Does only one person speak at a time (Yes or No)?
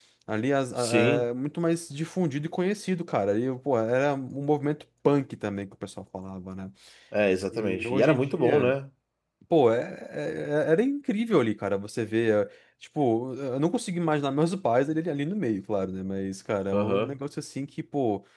No